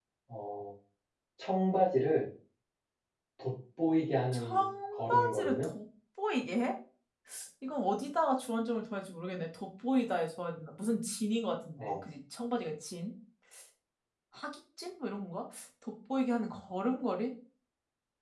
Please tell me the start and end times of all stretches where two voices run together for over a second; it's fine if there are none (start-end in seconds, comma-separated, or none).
4.3-5.7